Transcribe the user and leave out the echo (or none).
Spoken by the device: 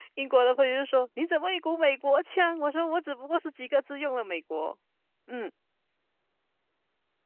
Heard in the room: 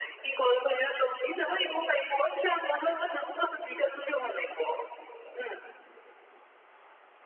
none